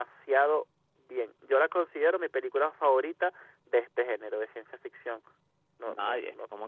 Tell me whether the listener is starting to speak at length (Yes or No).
Yes